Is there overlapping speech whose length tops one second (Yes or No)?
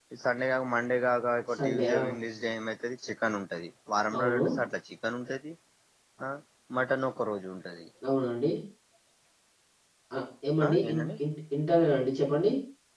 No